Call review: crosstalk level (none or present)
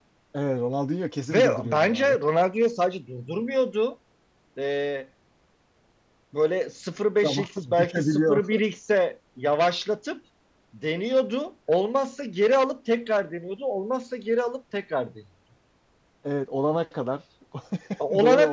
present